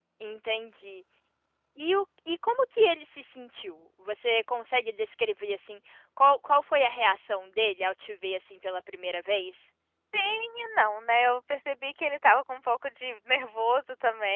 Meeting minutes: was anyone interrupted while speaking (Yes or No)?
No